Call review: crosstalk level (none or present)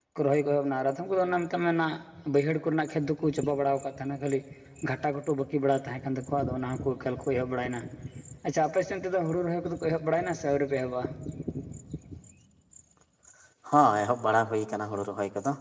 none